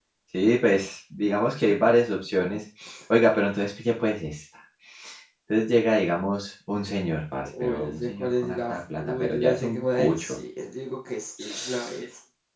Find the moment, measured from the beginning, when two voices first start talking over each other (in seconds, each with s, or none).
7.4 s